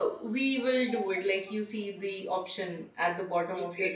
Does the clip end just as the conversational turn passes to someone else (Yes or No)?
Yes